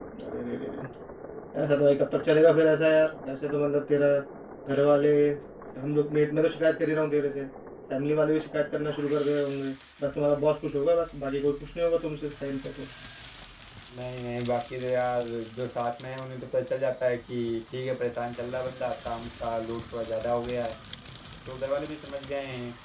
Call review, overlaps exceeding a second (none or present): none